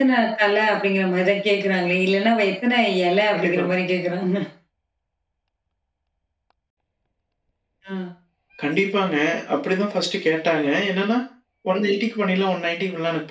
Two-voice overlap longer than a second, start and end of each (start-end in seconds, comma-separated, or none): none